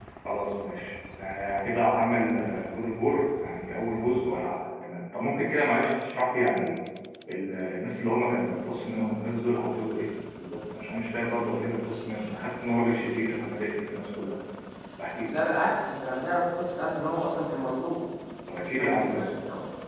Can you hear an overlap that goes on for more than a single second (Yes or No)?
No